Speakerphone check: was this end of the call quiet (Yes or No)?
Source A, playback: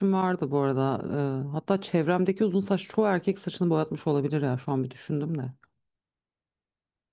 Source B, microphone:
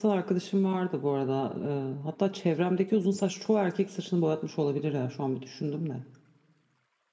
Yes